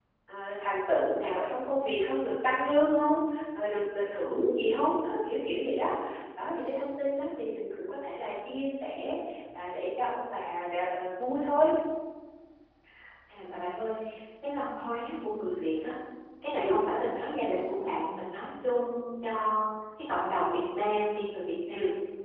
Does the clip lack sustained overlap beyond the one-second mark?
Yes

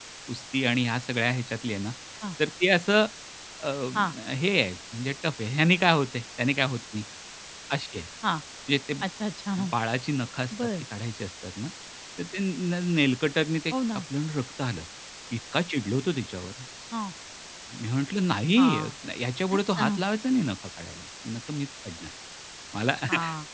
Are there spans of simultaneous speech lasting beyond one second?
No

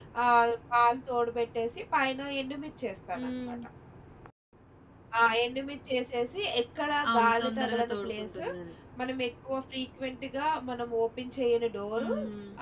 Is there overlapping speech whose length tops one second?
Yes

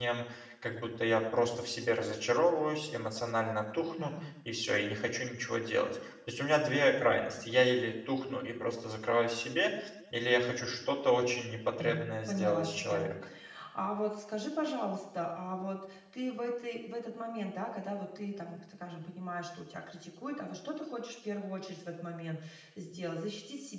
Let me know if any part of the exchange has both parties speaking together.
Yes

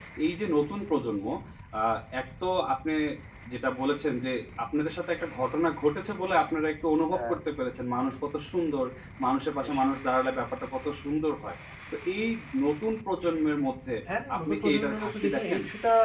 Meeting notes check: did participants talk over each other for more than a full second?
Yes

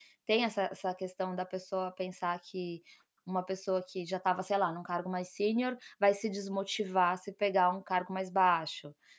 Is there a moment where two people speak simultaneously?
No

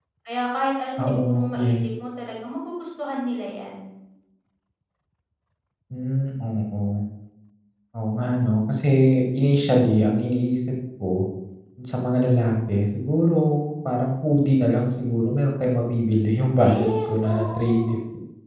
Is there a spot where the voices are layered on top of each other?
Yes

